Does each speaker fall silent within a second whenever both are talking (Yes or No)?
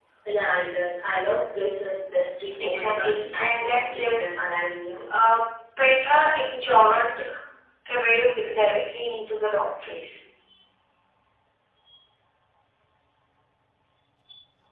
No